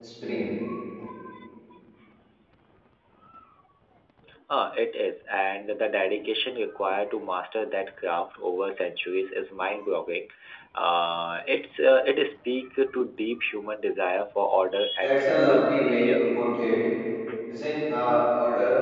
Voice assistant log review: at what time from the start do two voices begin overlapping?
15 s

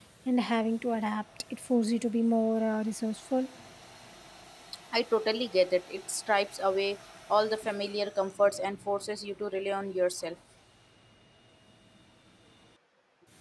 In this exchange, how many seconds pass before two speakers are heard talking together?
none

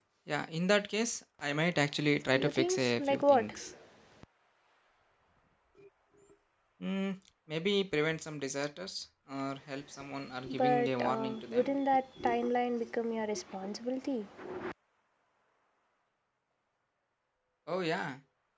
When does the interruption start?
2 s

